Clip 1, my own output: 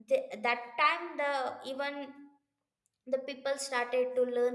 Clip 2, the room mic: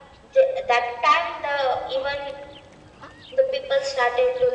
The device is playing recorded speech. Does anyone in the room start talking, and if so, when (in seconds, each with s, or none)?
none